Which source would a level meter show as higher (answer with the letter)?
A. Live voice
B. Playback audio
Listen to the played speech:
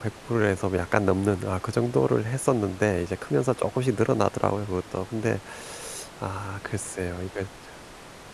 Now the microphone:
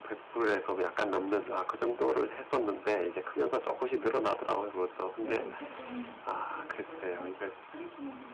B